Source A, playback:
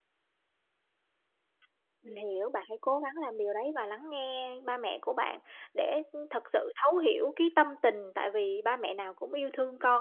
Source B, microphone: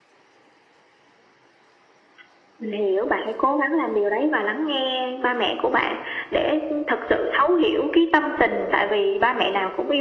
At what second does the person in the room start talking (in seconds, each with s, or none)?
none